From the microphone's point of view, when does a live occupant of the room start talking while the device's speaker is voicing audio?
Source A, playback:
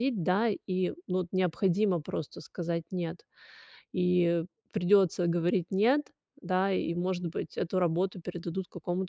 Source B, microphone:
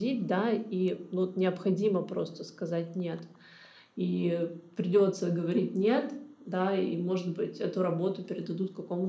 none

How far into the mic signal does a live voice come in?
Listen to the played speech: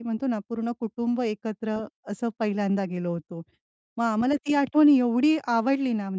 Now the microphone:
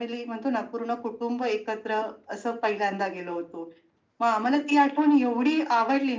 none

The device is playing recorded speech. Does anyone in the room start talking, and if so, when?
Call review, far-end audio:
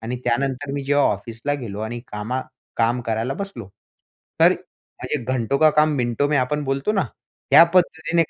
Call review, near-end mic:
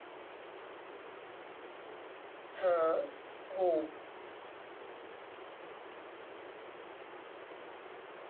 2.6 s

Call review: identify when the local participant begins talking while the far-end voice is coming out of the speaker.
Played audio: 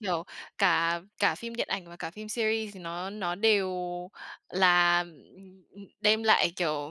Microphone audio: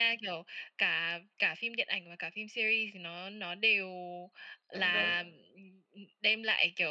4.7 s

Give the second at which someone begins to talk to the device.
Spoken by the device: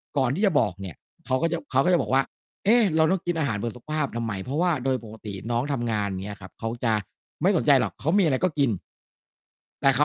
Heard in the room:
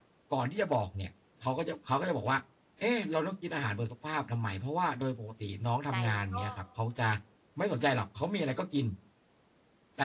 5.9 s

